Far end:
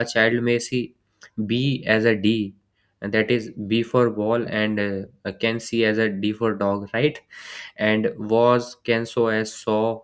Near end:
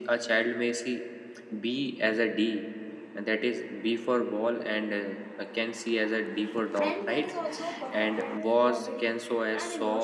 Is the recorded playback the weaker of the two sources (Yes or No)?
No